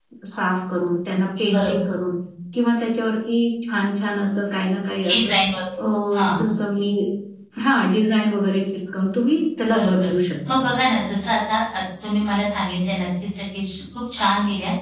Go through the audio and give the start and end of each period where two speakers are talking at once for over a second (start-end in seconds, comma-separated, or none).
none